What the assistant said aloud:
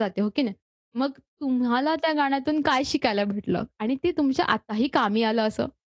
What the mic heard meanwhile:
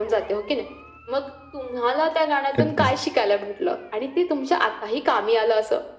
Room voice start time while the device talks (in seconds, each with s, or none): 2.6 s